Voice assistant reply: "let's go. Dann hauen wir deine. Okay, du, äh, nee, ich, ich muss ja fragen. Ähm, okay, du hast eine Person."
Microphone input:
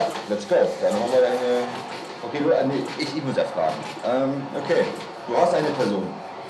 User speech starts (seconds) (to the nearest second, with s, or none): none